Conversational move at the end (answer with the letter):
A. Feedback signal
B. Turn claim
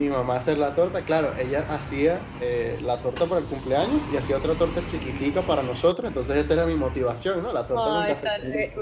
B